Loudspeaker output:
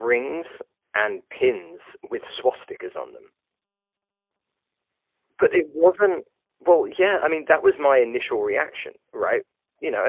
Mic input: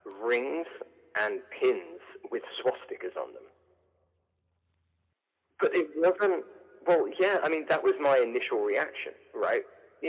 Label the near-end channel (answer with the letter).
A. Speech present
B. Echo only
B